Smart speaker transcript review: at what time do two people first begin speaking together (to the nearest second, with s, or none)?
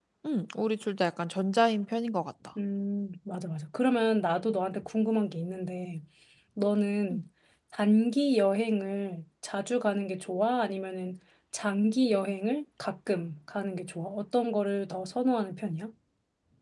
none